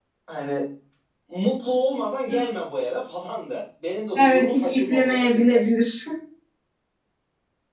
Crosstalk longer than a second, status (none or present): present